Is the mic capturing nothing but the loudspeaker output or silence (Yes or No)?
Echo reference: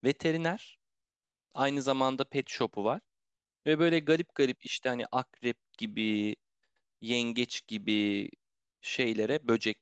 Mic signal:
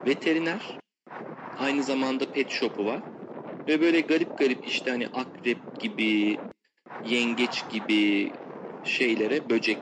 Yes